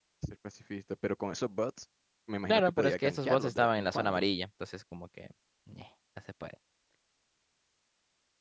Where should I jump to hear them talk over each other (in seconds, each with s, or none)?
2.5 s